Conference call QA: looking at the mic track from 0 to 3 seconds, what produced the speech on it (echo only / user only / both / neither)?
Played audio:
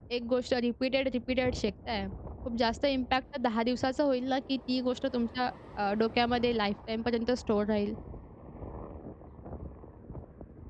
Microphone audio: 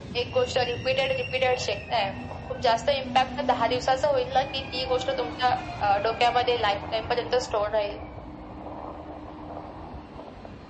echo only